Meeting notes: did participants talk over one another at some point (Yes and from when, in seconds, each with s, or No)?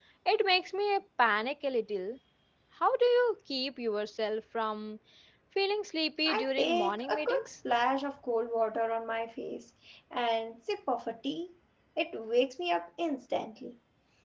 Yes, from 6.3 s